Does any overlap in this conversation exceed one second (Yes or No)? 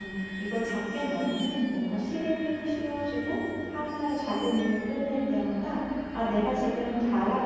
No